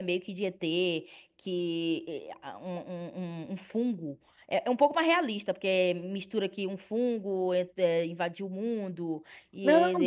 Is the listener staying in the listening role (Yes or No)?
No